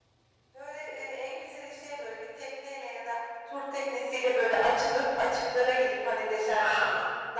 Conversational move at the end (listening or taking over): listening